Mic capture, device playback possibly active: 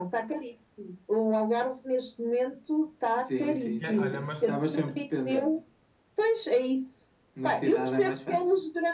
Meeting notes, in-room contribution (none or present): present